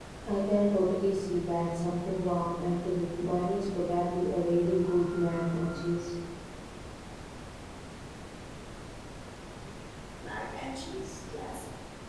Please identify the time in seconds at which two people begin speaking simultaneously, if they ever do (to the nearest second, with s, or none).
none